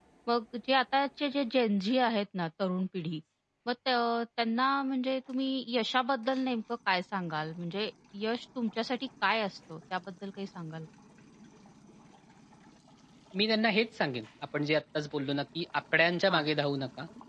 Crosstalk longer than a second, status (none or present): none